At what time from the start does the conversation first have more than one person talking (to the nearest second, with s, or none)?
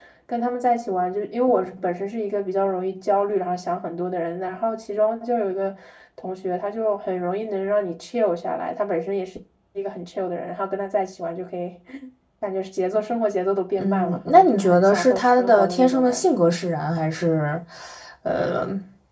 14 s